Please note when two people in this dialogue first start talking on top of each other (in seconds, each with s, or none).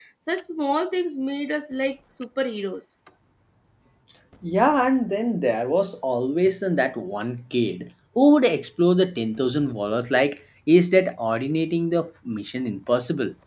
none